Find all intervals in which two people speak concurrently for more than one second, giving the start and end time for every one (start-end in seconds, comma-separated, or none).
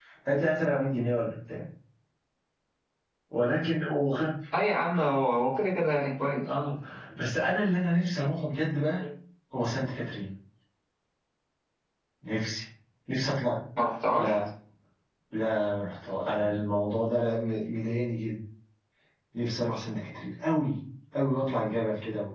none